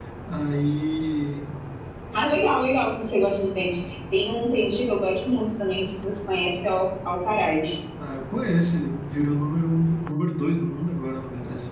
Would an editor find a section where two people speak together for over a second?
No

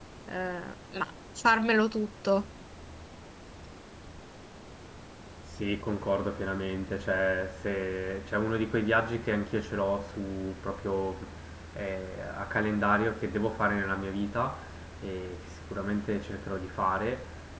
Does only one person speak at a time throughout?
Yes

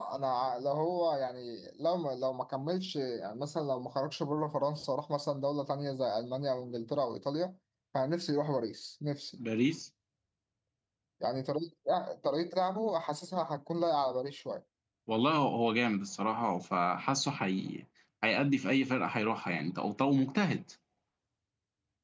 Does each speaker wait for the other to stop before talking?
Yes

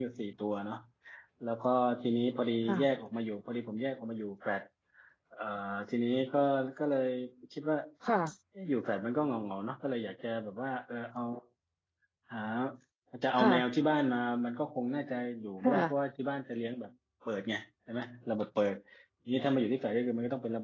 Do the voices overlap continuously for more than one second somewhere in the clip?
No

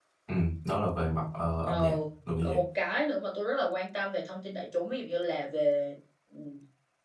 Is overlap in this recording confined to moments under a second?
Yes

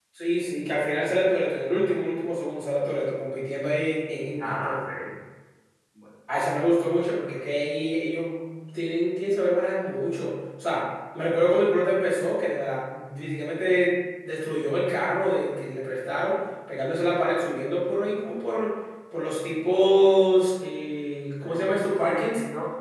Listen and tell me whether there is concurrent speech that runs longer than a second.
No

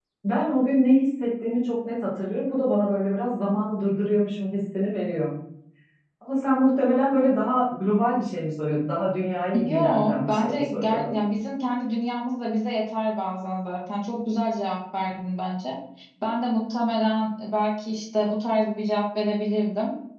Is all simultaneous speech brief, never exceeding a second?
No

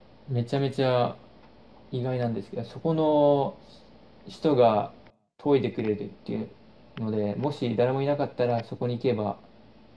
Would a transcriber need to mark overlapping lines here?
No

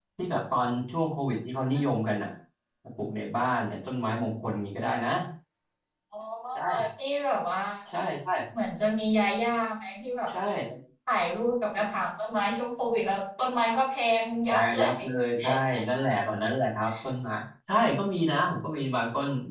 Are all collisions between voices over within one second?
Yes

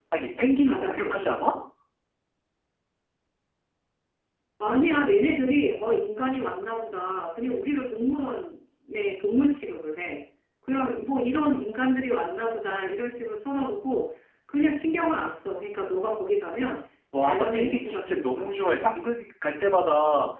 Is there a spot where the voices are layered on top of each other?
Yes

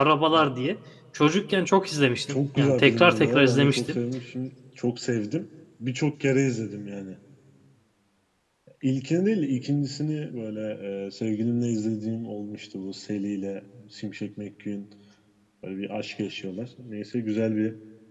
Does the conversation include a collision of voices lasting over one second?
Yes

